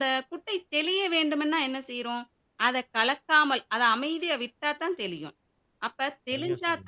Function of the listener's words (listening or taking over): listening